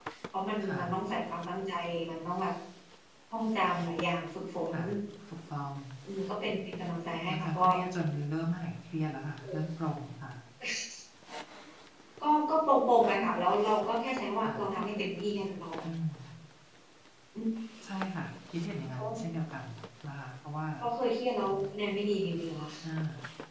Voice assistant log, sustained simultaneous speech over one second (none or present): none